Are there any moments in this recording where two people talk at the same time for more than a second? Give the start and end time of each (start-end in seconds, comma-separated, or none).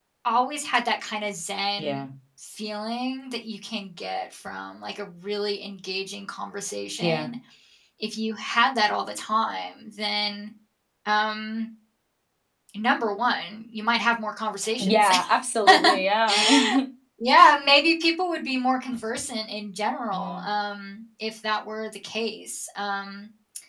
none